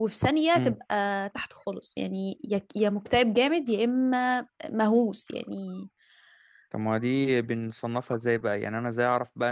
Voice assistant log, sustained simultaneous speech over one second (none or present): none